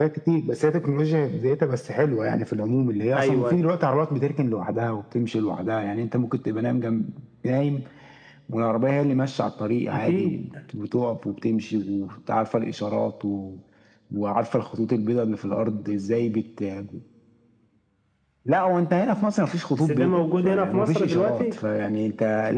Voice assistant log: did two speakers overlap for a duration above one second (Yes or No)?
Yes